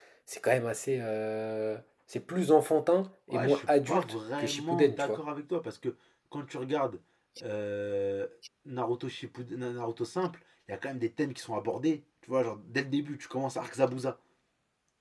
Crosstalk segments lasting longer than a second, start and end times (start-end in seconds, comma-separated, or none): 3.3-5.2